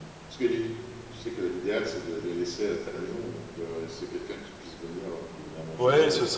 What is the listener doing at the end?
taking over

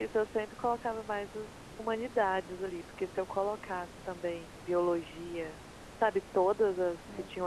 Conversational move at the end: listening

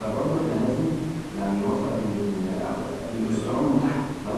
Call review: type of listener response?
listening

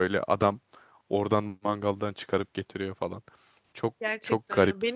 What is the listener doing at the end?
taking over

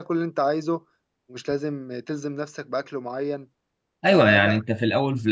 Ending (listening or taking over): taking over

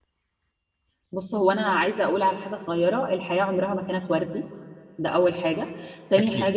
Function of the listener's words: listening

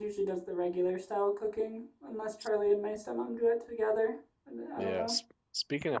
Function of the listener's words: taking over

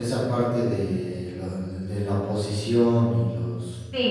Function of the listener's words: taking over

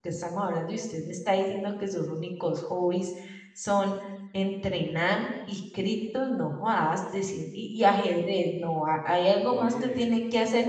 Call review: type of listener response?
listening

